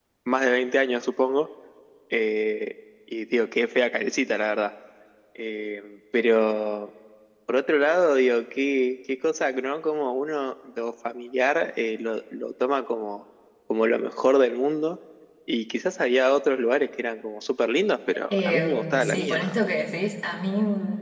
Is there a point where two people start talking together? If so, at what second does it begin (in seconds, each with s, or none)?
18.3 s